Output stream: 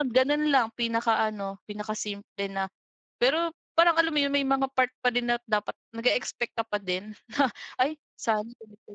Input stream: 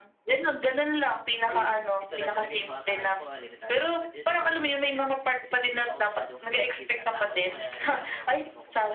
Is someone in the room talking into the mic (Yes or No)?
Yes